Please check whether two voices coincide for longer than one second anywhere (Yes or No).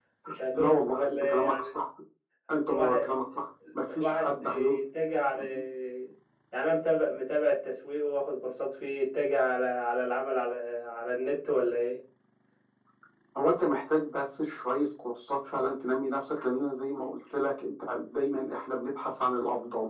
Yes